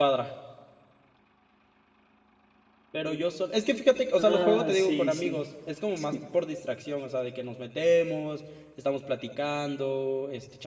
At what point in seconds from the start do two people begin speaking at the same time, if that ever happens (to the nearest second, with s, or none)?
4 s